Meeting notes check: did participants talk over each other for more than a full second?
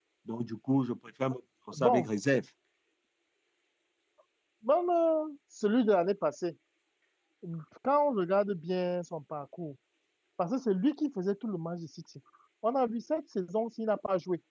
No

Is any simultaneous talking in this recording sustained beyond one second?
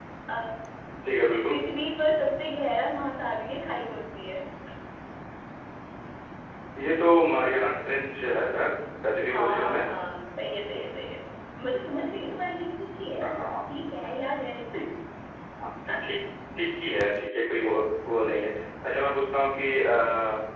No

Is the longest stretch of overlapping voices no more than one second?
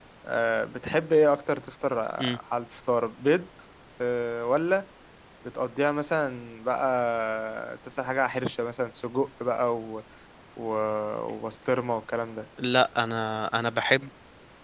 Yes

